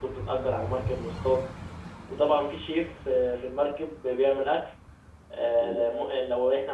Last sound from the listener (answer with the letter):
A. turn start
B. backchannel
B